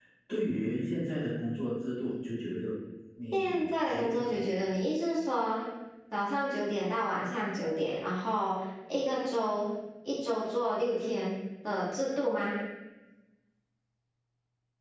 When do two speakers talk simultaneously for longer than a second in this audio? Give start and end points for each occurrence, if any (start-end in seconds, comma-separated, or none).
3.3-4.6